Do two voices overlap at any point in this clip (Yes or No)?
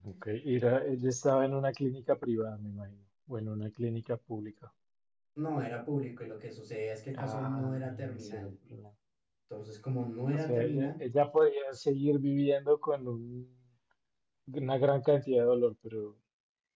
Yes